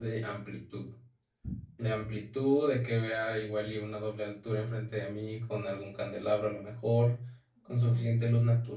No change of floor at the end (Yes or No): Yes